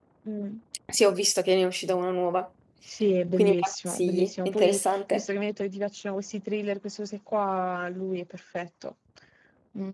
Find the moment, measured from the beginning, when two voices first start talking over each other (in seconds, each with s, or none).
3.4 s